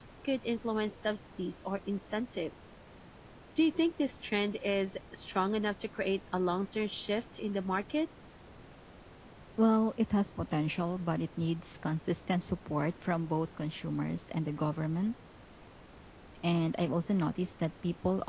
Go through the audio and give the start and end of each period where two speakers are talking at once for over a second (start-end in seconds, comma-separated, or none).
none